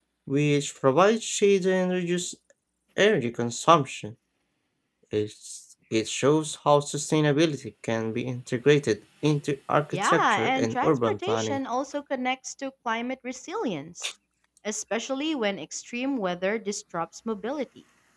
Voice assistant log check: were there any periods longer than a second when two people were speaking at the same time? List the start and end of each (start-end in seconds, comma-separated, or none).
9.9-11.6